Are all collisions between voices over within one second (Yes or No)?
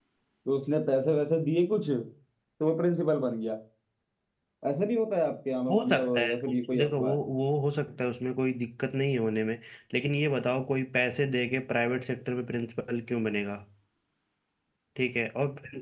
No